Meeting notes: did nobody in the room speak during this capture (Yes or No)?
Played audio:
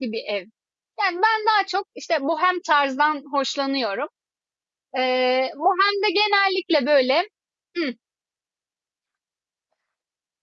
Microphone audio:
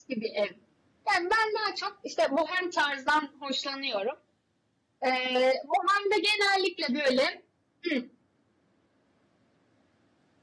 Yes